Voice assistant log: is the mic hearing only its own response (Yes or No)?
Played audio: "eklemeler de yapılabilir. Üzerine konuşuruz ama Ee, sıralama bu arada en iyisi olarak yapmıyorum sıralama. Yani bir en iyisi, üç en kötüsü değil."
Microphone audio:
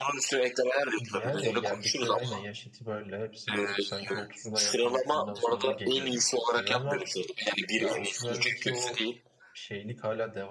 No